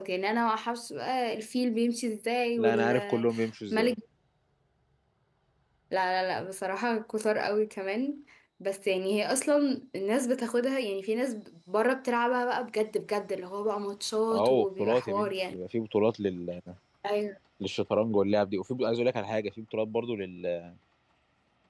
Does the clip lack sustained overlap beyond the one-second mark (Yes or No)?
No